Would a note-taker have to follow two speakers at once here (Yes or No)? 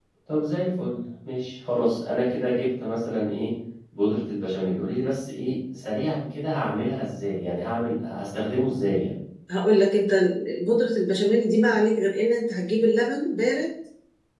No